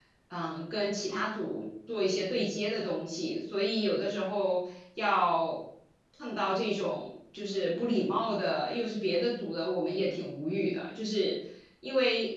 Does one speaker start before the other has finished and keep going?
No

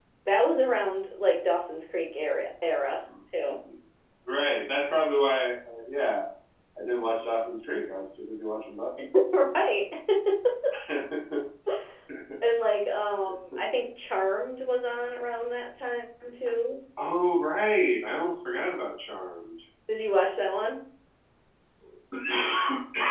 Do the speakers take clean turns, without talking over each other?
Yes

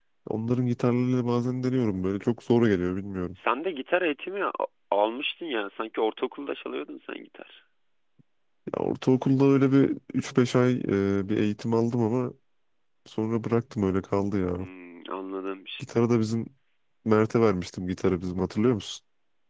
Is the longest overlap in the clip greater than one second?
No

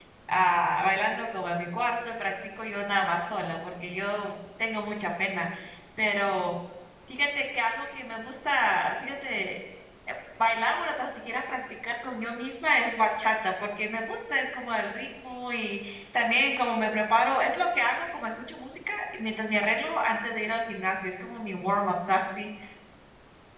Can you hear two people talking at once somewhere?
No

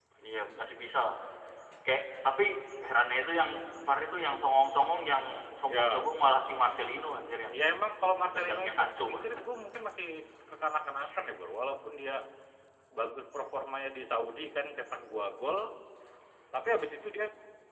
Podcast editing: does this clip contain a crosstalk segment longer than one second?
Yes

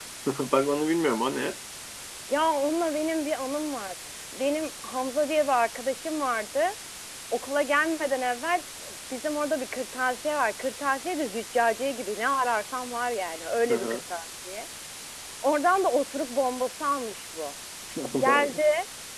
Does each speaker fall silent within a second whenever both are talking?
Yes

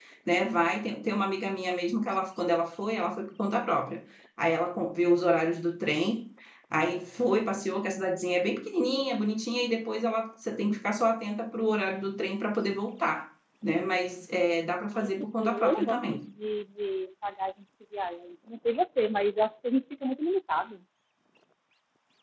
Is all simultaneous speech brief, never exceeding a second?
No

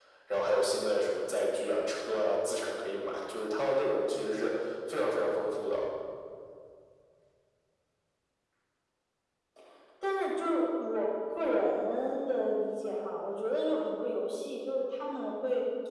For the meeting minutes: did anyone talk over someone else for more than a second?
No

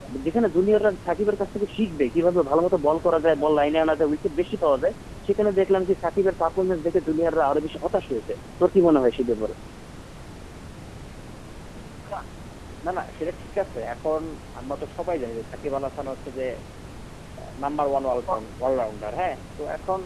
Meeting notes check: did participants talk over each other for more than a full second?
No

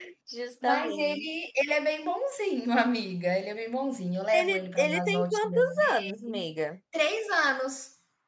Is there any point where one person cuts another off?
Yes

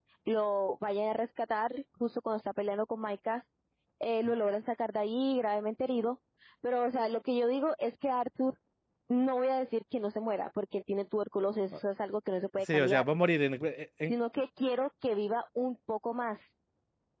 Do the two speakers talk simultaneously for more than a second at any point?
No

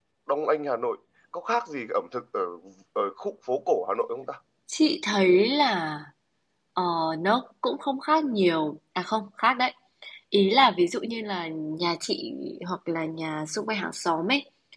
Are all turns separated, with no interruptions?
Yes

